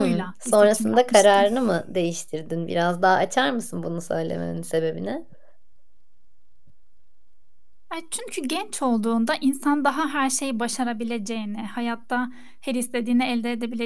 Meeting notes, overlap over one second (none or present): present